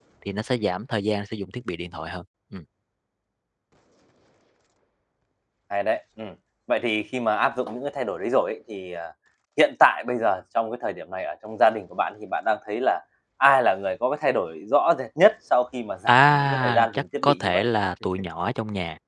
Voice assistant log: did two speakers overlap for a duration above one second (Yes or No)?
Yes